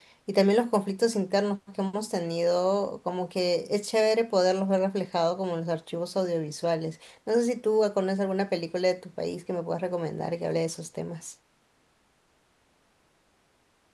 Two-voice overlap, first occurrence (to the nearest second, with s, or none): none